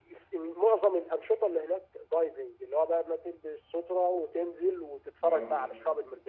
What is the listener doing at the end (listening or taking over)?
listening